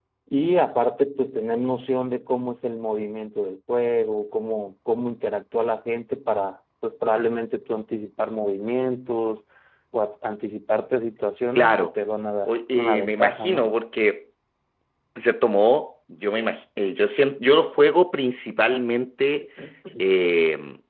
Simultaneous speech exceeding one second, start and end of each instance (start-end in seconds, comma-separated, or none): 12.5-13.7